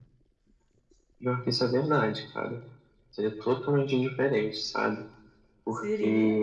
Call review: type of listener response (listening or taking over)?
listening